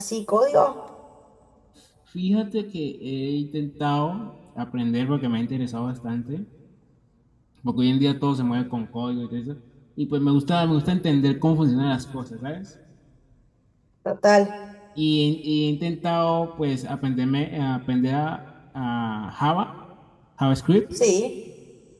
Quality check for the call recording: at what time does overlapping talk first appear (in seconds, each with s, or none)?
none